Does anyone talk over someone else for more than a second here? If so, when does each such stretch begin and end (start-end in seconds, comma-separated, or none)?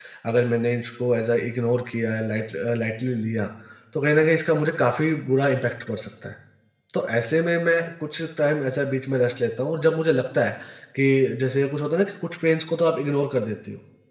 none